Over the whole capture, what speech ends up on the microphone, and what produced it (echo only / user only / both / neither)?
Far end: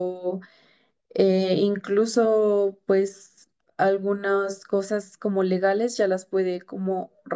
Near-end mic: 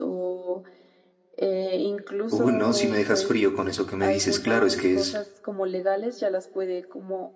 both